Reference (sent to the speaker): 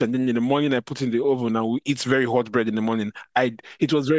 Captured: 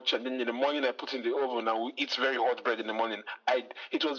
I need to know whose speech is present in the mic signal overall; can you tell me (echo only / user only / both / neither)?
echo only